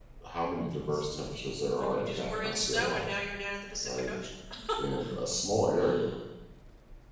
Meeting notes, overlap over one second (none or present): present